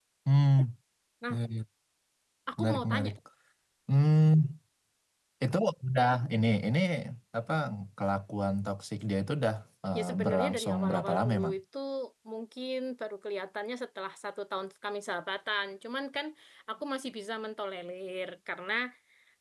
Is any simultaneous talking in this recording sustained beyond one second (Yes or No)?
Yes